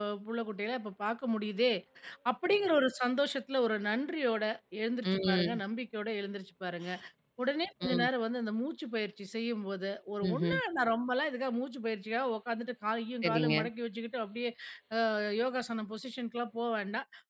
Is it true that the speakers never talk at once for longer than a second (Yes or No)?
Yes